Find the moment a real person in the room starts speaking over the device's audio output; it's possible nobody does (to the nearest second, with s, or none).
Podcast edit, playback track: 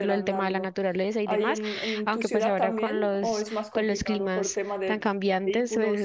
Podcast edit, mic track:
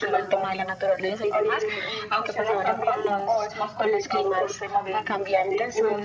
none